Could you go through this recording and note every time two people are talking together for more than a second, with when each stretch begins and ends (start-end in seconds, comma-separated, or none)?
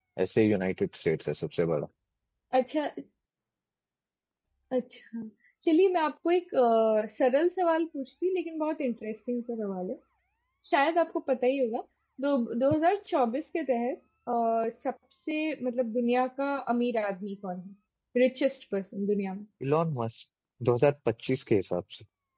none